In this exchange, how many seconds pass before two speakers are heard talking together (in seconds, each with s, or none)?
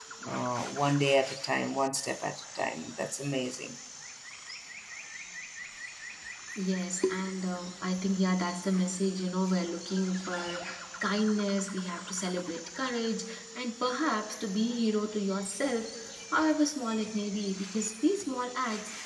none